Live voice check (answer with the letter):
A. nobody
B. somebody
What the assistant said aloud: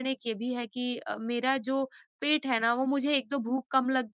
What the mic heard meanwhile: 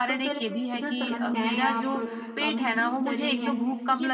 B